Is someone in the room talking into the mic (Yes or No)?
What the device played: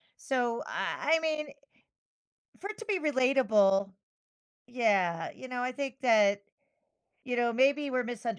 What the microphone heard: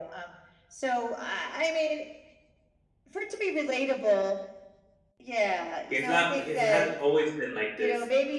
Yes